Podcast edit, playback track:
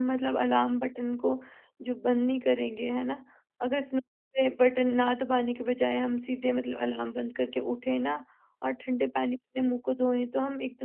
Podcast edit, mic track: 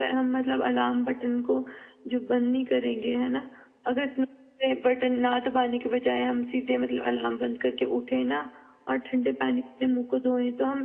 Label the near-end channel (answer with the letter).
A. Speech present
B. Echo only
B